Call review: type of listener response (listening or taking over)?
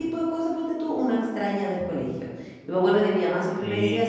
listening